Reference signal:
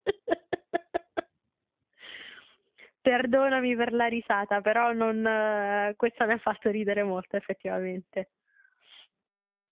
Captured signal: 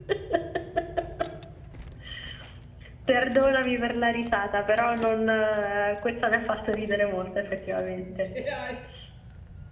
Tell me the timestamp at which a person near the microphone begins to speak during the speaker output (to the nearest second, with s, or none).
8 s